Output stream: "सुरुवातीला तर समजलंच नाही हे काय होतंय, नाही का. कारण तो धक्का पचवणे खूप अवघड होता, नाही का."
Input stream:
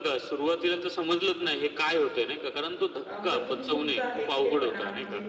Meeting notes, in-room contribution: present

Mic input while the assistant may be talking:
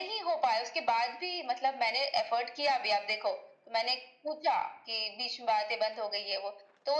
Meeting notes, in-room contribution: none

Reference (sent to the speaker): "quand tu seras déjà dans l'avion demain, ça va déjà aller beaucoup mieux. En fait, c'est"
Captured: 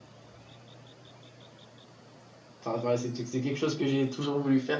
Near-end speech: present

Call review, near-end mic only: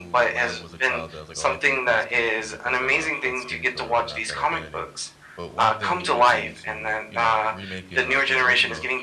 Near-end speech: present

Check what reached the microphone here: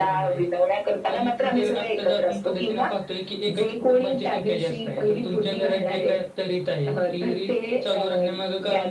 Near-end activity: none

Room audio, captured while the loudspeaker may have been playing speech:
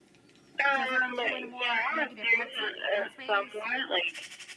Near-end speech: present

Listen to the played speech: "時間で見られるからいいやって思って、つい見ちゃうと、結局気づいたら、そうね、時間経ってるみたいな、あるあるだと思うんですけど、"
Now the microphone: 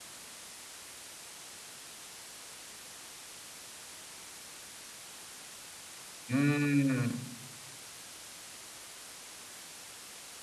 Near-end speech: present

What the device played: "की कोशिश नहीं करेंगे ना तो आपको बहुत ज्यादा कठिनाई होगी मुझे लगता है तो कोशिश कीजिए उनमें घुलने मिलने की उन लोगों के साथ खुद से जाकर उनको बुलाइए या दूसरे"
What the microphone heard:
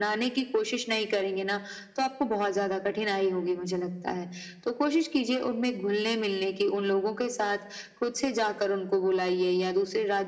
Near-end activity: none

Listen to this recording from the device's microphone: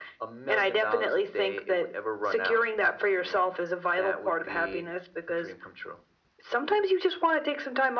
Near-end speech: none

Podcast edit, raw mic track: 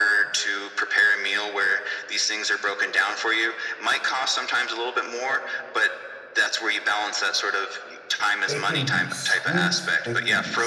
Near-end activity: present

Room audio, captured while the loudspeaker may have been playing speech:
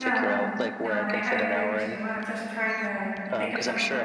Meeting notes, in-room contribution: present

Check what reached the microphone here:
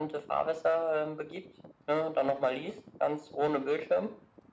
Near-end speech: none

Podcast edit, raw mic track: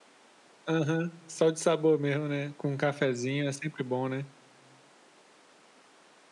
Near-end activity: none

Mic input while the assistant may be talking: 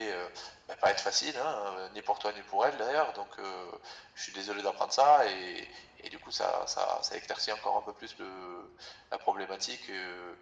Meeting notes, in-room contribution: none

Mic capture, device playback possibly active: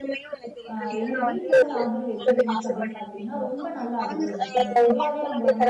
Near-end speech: present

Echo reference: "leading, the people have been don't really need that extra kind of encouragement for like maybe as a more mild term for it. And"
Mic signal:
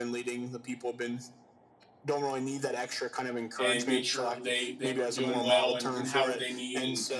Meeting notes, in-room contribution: present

